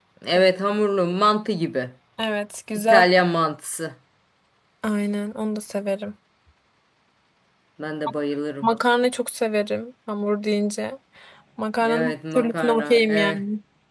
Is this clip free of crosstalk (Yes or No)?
No